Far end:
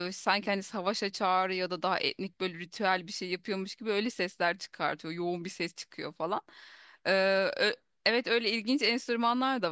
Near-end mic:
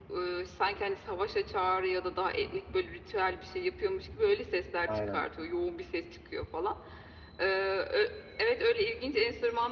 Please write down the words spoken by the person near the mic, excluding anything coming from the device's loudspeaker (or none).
Aynen.